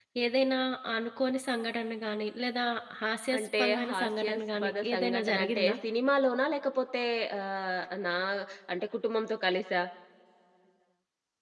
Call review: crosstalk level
present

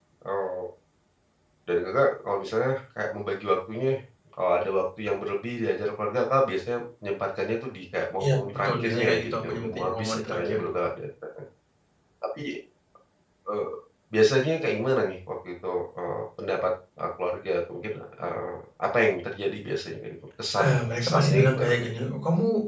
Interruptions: present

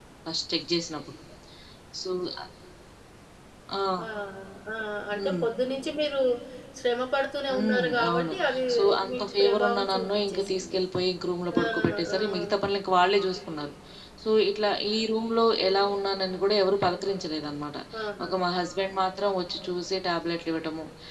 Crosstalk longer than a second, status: present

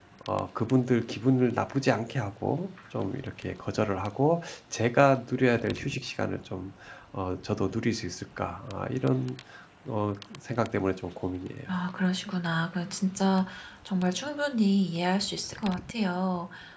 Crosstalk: none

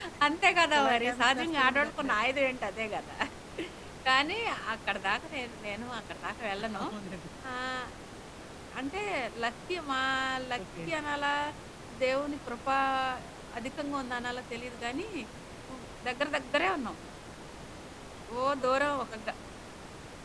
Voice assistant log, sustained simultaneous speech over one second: present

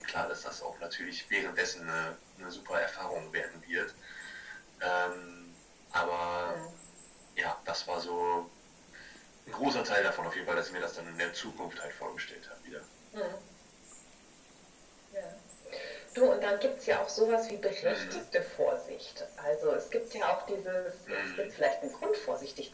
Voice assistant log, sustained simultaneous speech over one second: none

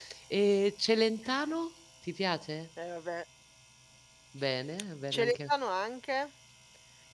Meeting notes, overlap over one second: none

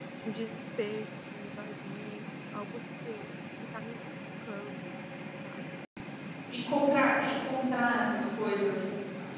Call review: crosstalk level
none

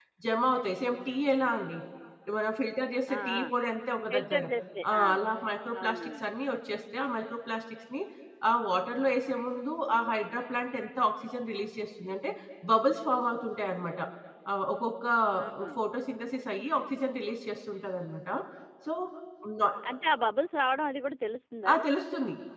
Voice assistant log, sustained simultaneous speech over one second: none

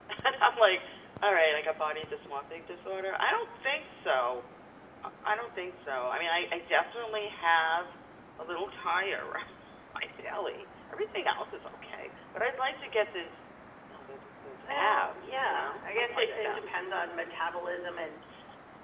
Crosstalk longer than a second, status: present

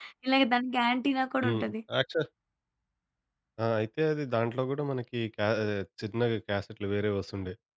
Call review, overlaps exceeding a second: none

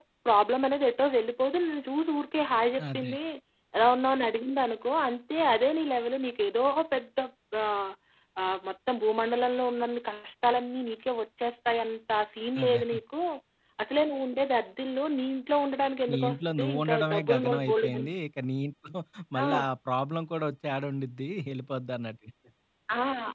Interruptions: present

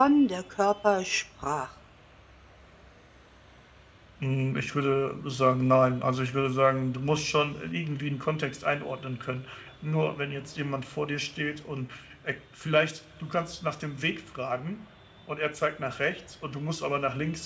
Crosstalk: none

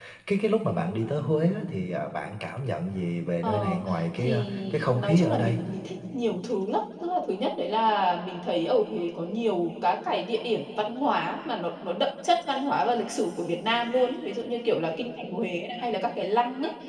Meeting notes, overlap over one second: present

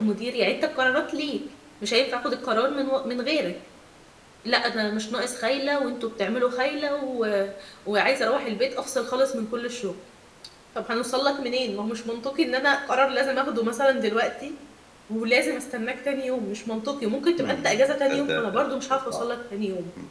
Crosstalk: present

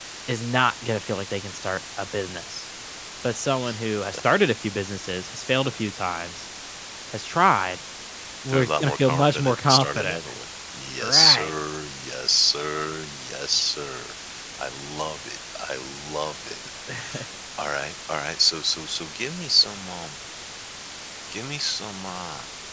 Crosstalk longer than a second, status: present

